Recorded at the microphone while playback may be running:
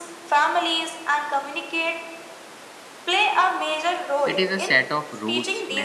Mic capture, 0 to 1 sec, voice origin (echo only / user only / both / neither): echo only